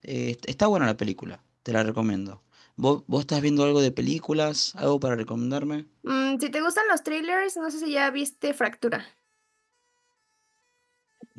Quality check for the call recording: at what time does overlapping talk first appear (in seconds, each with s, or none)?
none